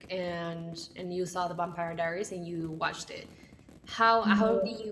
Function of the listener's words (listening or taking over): listening